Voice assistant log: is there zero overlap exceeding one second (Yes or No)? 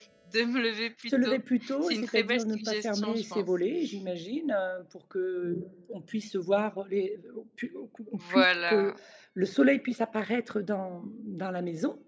No